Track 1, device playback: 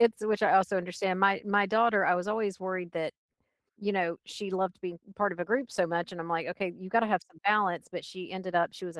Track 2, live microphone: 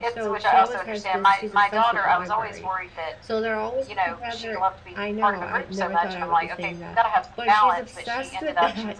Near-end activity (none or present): present